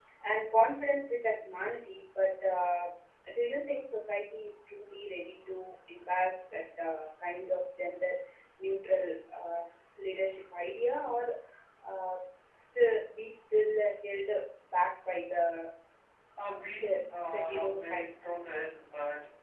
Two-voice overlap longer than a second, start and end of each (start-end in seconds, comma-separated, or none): 16.7-18.2